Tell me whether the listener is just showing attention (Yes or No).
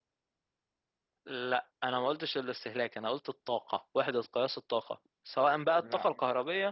Yes